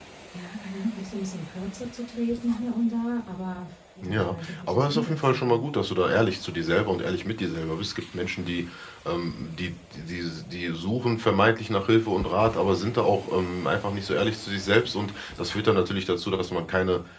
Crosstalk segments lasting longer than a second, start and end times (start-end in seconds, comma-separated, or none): 4.0-5.7